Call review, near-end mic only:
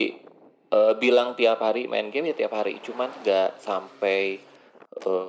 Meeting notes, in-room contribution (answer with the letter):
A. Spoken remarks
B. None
B